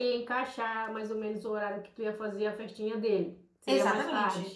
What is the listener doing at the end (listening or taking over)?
taking over